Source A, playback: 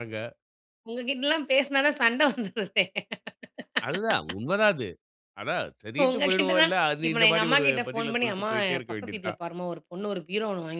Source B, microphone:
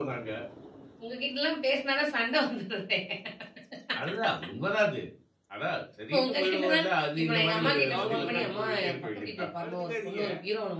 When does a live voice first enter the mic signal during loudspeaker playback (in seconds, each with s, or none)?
7.3 s